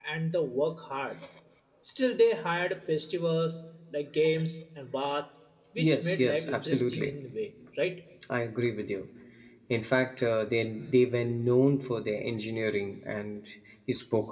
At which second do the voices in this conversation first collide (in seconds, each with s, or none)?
5.8 s